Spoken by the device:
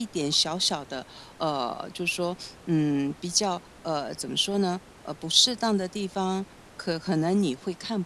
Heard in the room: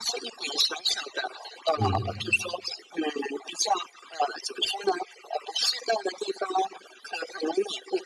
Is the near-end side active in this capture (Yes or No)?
Yes